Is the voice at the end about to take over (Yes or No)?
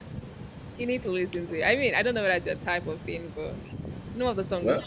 No